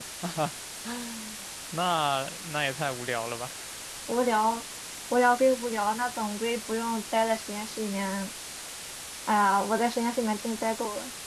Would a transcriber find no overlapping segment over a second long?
Yes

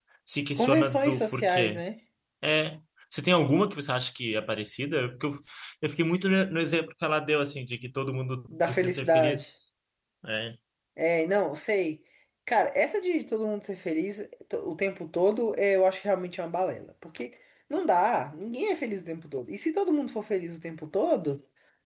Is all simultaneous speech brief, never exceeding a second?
No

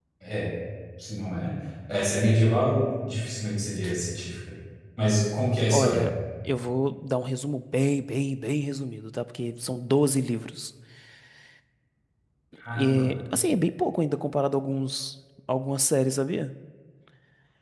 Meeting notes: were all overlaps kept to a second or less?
Yes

